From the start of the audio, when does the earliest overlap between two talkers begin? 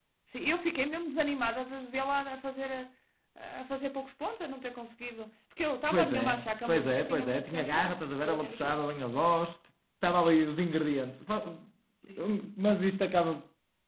5.9 s

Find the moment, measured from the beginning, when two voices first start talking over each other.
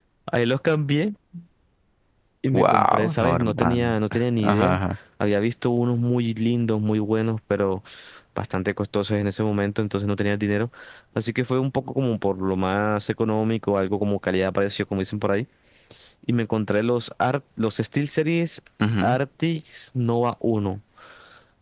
2.5 s

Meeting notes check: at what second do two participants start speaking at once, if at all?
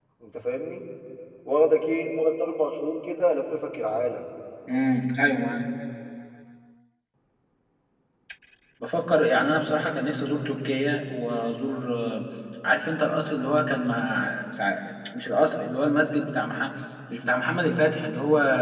none

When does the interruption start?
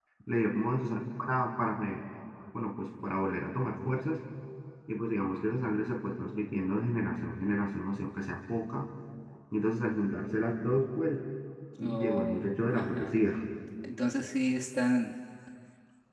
11.8 s

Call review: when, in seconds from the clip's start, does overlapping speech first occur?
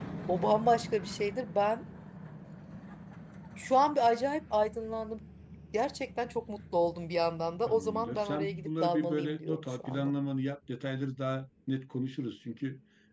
7.7 s

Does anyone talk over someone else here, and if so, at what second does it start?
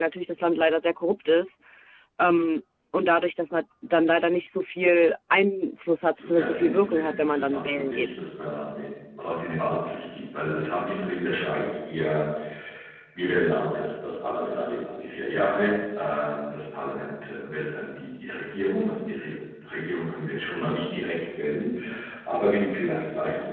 6.2 s

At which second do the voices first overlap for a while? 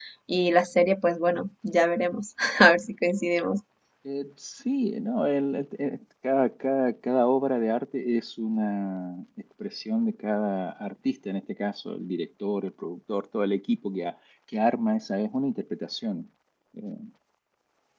none

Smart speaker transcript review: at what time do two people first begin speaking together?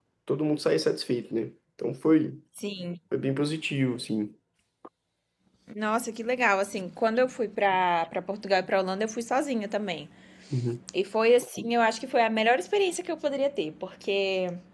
none

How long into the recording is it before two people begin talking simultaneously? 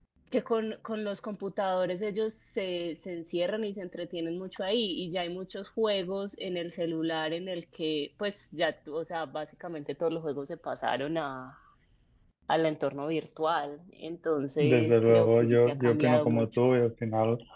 14.6 s

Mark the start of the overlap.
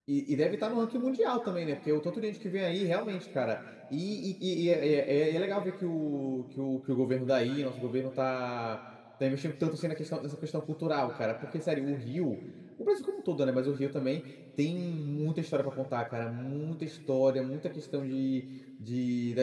none

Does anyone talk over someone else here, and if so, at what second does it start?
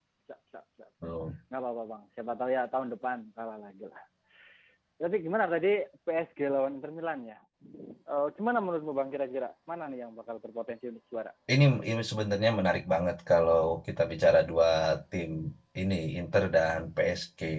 none

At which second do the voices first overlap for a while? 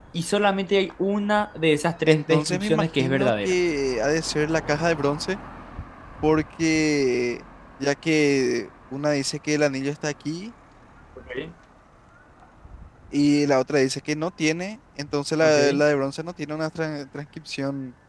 2.1 s

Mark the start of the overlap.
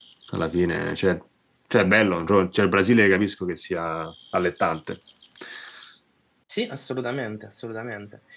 none

